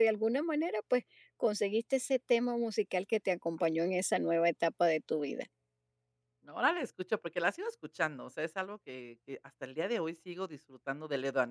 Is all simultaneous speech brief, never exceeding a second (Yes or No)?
Yes